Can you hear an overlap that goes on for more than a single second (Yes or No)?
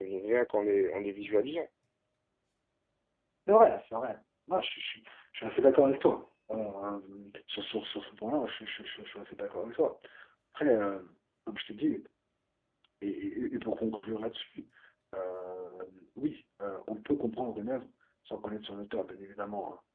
No